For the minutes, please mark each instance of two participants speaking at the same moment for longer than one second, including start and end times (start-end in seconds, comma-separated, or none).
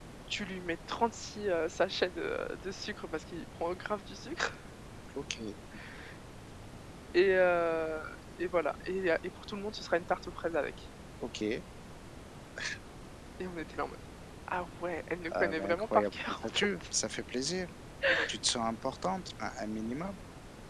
15.4-16.8